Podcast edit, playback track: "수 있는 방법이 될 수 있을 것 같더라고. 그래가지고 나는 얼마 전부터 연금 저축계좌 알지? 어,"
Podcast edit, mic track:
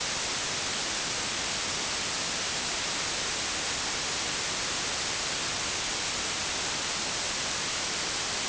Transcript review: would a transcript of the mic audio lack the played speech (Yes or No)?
Yes